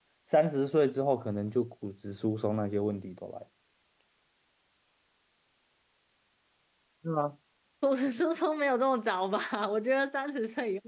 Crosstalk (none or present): none